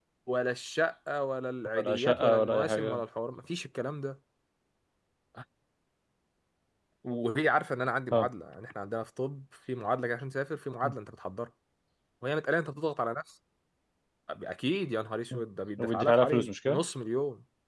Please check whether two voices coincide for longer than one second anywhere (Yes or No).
Yes